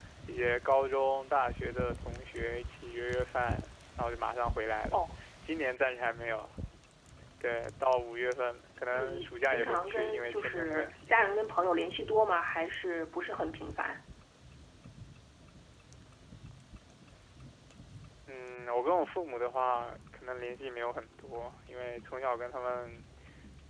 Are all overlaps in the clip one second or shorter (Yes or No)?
No